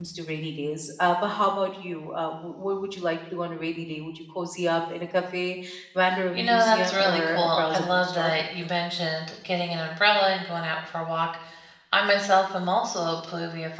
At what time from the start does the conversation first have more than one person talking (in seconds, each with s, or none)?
6.3 s